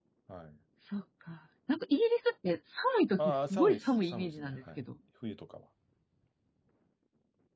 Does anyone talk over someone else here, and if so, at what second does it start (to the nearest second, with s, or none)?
3 s